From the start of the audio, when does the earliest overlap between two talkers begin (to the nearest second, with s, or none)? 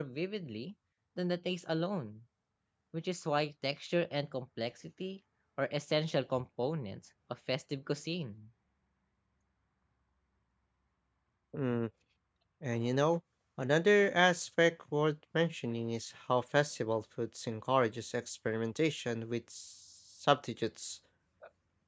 none